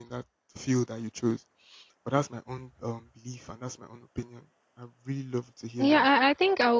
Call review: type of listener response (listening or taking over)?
taking over